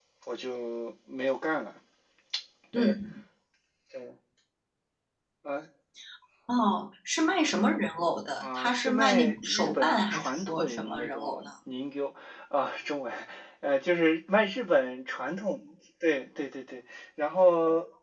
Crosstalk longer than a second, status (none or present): present